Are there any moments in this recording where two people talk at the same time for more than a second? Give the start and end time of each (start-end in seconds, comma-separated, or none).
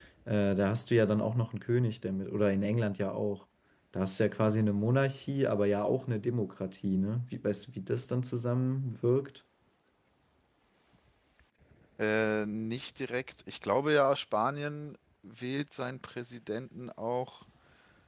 none